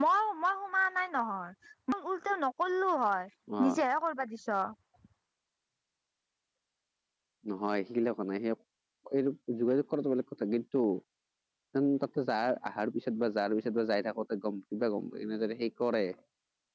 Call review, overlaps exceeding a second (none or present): none